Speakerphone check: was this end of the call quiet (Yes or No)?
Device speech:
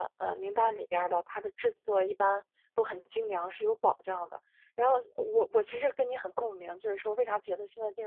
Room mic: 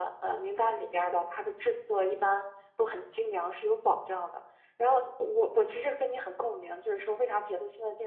Yes